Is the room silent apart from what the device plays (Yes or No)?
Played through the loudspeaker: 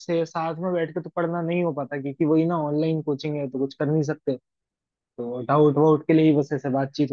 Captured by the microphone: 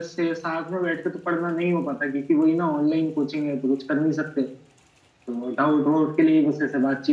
Yes